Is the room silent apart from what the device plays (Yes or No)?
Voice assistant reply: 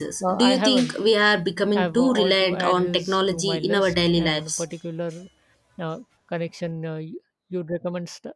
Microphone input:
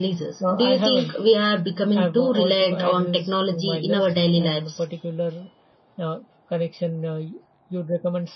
Yes